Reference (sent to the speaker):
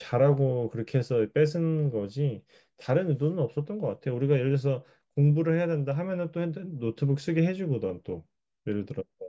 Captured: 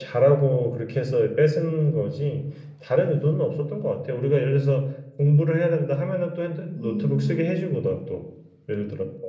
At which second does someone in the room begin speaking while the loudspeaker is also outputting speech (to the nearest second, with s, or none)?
7 s